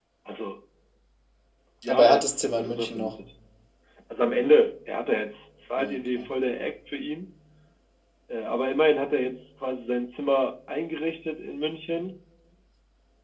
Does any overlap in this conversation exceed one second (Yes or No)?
Yes